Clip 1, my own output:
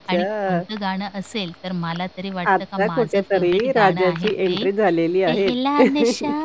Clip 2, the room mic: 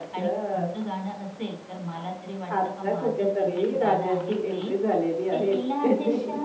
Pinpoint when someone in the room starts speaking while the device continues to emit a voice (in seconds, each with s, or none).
none